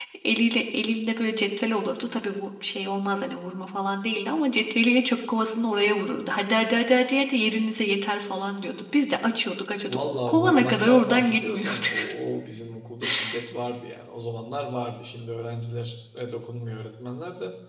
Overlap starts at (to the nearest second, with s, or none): 10 s